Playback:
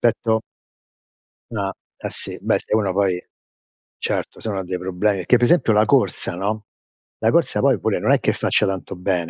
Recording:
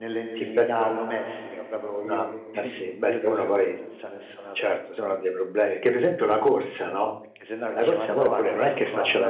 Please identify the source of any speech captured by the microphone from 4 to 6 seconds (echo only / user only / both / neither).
both